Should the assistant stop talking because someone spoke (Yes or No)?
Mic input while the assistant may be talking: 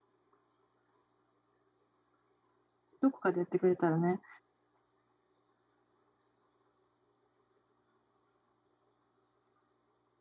Yes